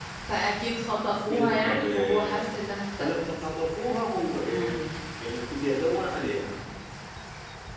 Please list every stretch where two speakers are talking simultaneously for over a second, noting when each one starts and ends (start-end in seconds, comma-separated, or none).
1.2-2.4